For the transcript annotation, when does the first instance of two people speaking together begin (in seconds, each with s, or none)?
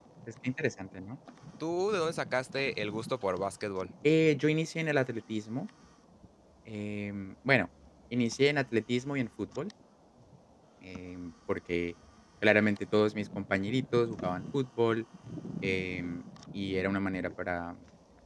none